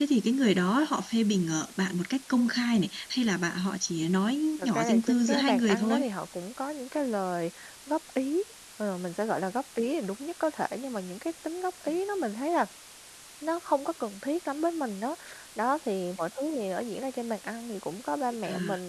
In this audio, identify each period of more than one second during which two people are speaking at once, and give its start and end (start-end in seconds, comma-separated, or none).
4.6-6.0